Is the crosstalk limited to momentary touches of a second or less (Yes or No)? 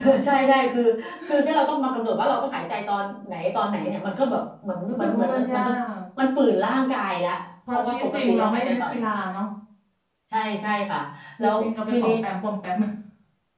No